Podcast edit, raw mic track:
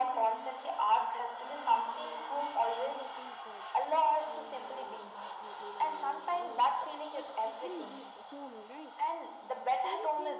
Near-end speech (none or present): present